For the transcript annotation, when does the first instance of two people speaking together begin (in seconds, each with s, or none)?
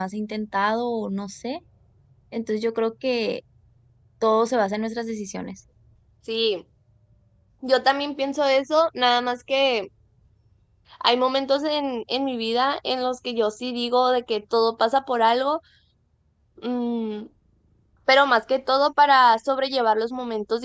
none